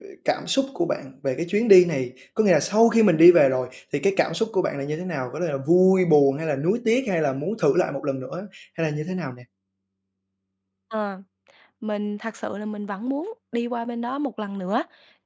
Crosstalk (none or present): none